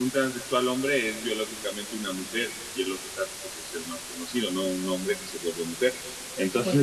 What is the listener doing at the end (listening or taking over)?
taking over